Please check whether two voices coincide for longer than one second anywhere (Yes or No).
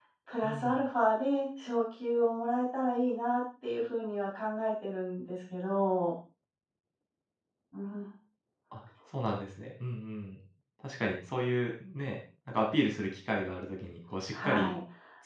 No